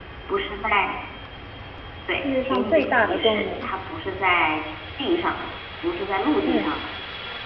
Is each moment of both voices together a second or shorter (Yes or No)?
No